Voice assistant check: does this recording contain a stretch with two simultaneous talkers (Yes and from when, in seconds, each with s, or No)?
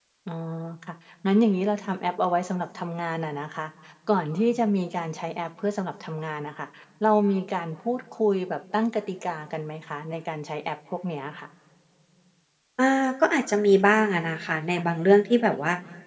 No